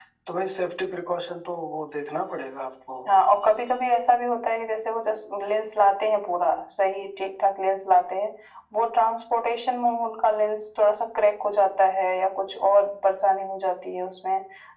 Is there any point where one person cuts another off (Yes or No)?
No